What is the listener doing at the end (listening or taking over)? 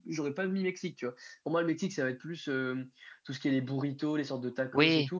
listening